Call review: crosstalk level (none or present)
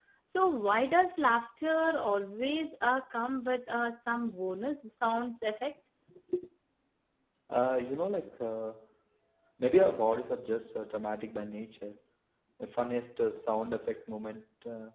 none